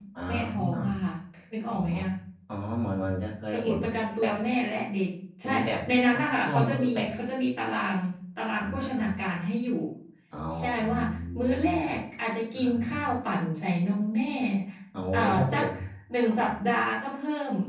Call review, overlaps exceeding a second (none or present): present